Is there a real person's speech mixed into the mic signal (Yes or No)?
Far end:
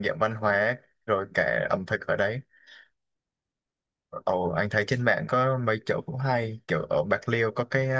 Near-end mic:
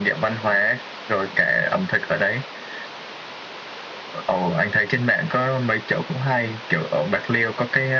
No